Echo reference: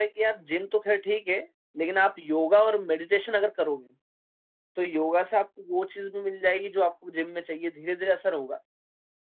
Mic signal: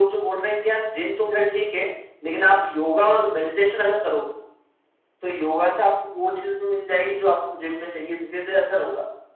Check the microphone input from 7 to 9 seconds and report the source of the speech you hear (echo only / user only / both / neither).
echo only